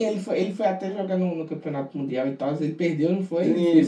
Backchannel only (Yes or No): No